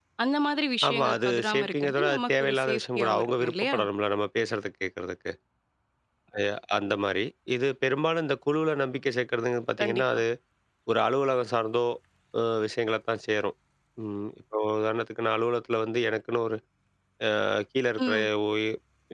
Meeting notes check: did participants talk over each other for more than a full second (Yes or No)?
Yes